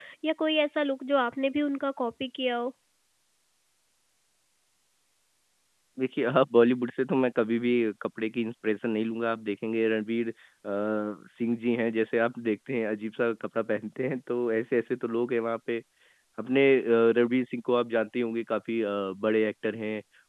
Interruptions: none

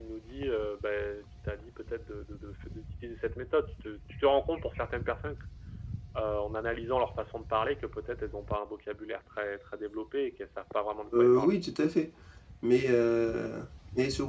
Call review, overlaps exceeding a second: none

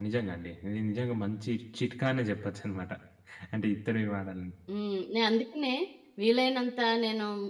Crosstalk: none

